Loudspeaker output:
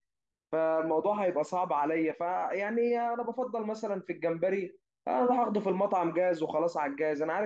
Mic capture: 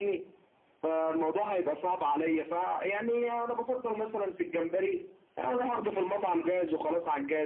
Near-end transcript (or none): none